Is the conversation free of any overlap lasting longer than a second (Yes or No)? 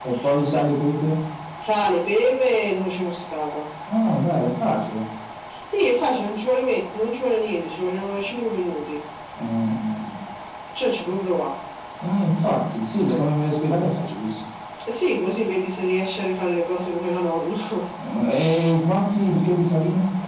Yes